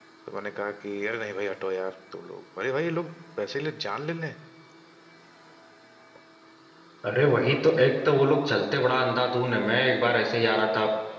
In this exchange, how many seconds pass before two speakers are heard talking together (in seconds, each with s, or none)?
none